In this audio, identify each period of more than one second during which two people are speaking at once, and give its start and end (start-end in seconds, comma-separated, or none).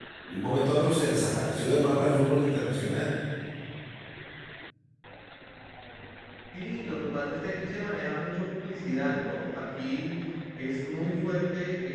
none